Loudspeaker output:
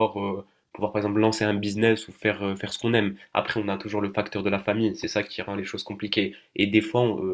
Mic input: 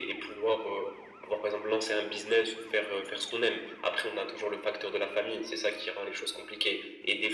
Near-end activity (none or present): none